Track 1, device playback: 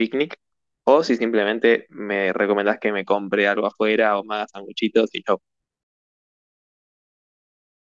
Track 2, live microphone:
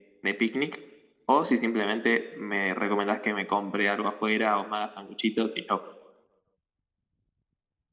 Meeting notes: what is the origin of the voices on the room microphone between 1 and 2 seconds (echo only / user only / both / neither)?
echo only